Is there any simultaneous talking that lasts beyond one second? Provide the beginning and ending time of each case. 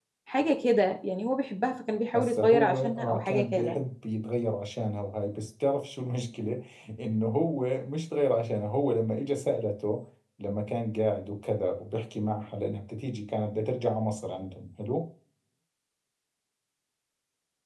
2.1-3.8

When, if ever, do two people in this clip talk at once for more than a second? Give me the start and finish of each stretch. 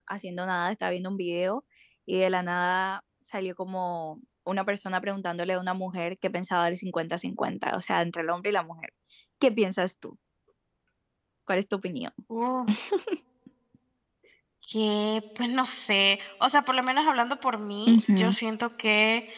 none

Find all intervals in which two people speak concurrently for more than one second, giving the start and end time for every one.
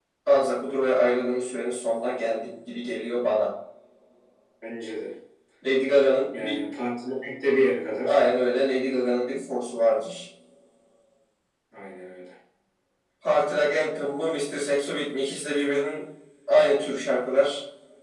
none

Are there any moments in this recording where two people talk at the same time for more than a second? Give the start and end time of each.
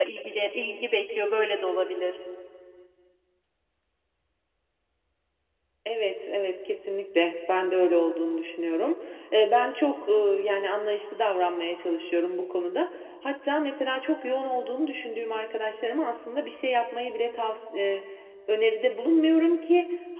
none

